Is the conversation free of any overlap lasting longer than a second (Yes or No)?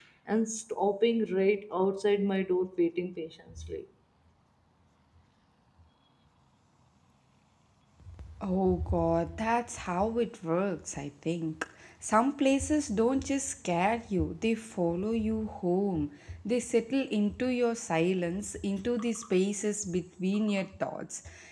Yes